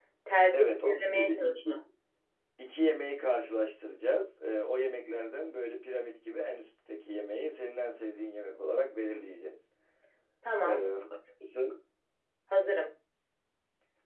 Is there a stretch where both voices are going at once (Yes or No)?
Yes